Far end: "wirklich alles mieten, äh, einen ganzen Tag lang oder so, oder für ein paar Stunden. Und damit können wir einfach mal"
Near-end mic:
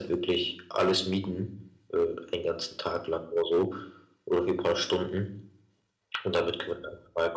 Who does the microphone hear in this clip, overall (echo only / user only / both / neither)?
echo only